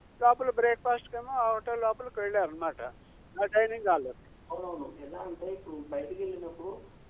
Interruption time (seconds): none

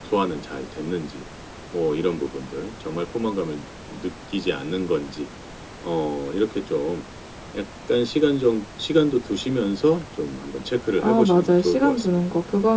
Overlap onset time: 11.0 s

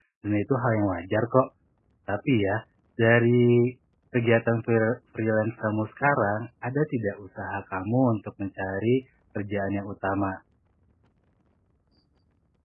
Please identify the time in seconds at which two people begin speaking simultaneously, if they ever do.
none

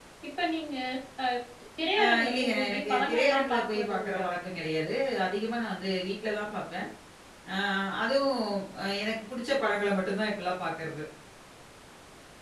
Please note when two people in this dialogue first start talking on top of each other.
2.0 s

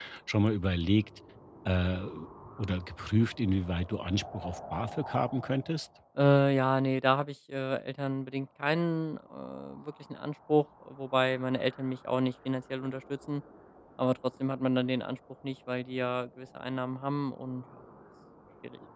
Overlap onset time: none

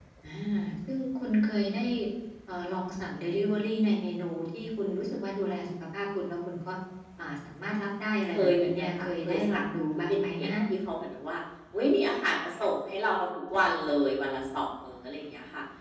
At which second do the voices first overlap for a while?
8.3 s

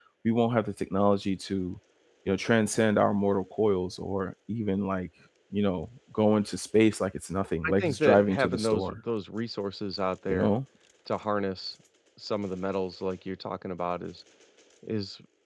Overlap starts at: 7.7 s

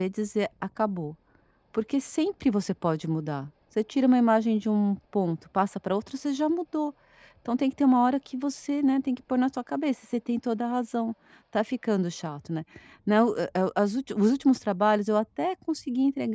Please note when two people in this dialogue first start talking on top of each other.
none

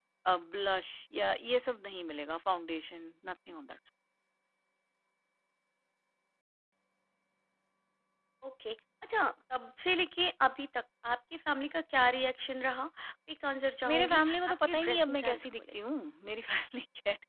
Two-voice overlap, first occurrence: 13.8 s

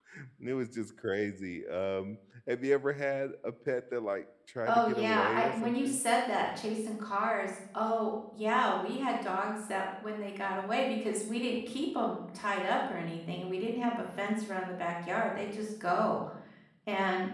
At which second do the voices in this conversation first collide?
4.7 s

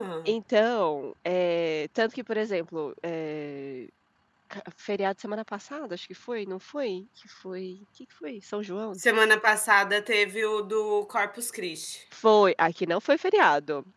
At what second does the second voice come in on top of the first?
none

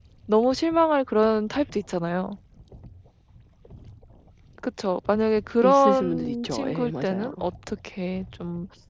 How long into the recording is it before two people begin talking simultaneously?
5.6 s

